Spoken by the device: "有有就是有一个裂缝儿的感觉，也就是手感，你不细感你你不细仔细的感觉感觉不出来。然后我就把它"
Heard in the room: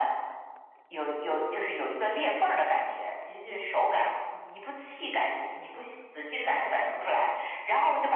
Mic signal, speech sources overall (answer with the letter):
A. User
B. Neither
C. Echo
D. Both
C